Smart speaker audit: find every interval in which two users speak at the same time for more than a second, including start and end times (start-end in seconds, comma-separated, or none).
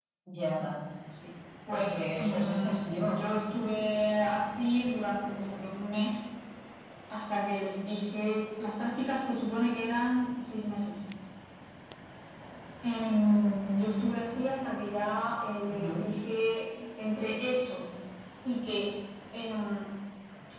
1.7-3.2